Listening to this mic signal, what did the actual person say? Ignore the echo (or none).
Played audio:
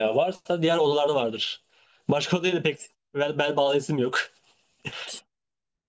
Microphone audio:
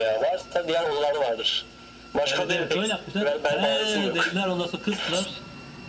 Evet evet öyle yapmışlar. He dediler ondan sonra kıstılar.